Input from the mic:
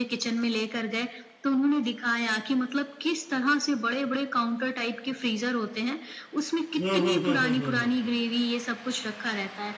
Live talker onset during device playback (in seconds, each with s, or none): 6.8 s